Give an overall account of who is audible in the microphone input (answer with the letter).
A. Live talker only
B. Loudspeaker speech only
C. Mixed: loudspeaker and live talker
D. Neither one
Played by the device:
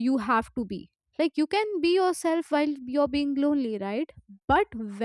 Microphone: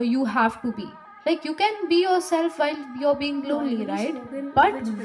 C